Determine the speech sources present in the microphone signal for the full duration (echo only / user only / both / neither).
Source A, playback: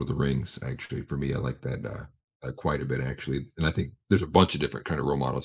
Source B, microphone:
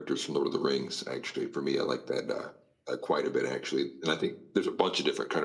echo only